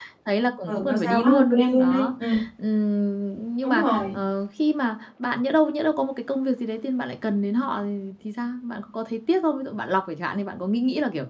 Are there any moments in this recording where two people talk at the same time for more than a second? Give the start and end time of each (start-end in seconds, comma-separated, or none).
0.7-2.1